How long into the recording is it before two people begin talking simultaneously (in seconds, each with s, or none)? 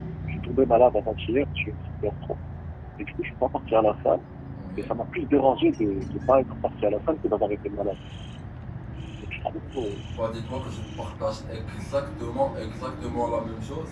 none